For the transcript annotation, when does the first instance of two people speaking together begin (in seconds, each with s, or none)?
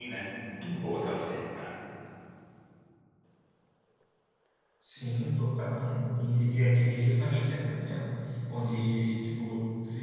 none